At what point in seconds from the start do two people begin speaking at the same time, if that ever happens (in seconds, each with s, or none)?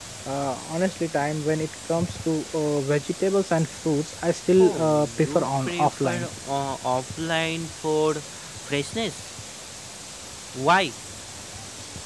4.6 s